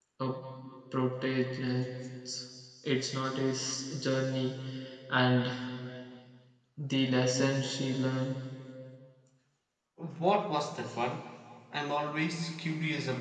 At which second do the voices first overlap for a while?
none

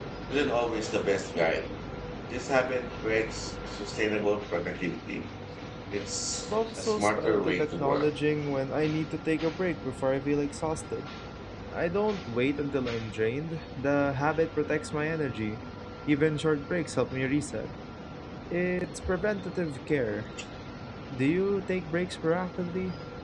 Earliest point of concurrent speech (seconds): 6.4 s

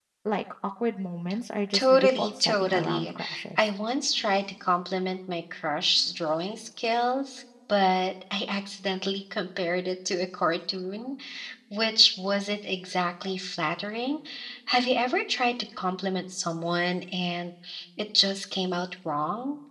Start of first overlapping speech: 1.7 s

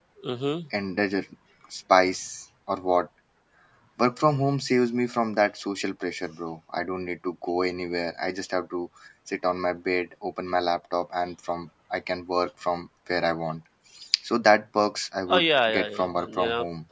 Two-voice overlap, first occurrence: 15.3 s

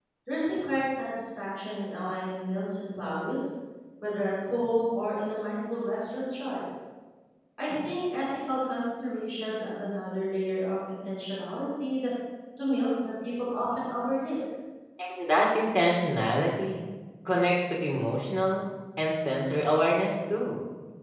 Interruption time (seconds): none

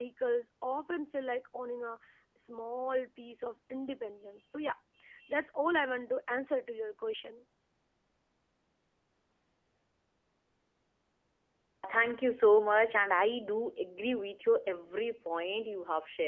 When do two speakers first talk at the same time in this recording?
none

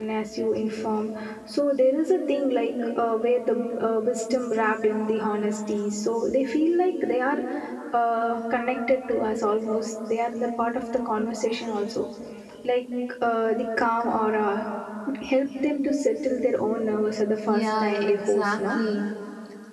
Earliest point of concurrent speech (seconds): 17.5 s

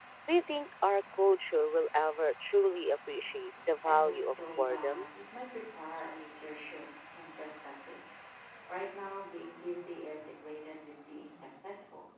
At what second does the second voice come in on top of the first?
3.8 s

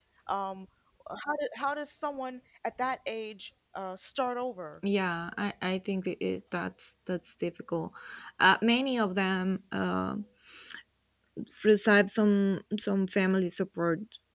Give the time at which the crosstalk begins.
none

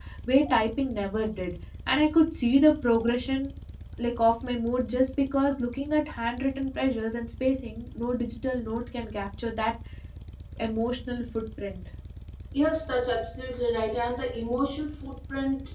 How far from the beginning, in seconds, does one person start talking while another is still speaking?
none

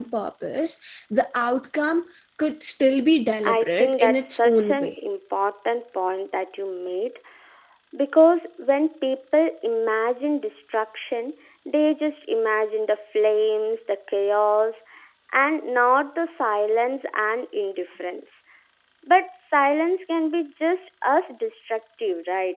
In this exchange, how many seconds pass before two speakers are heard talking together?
3.4 s

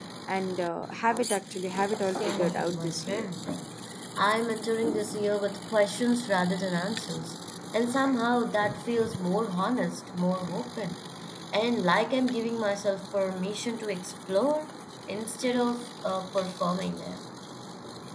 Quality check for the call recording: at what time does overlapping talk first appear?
2.1 s

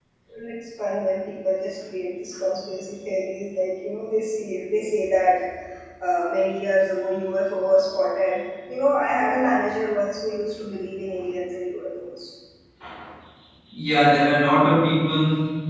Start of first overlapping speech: none

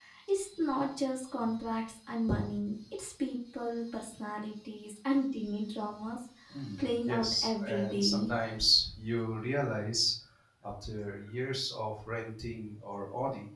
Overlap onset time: 7.0 s

